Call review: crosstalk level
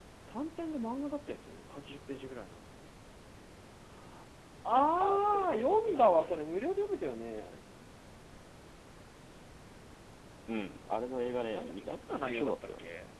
present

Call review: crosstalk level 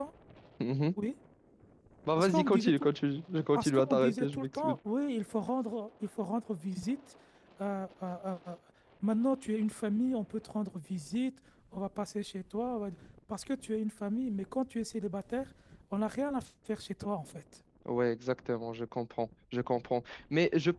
present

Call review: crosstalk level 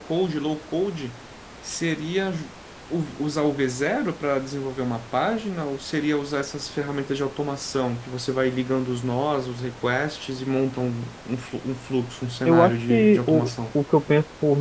present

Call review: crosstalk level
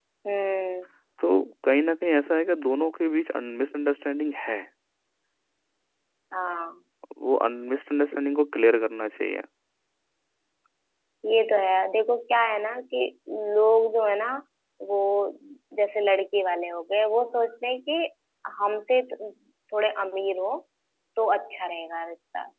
none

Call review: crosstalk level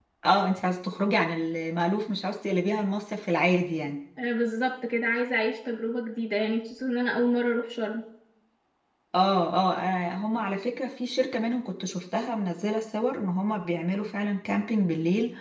none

